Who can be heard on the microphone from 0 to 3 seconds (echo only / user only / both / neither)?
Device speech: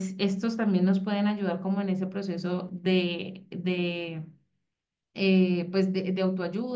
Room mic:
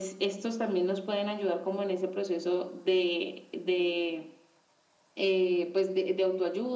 echo only